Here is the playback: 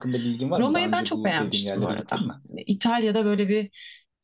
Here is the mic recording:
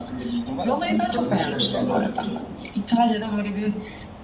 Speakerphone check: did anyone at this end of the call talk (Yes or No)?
Yes